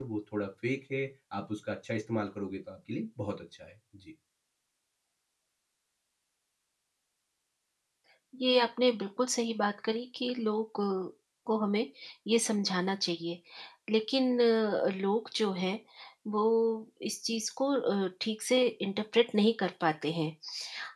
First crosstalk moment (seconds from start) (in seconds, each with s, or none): none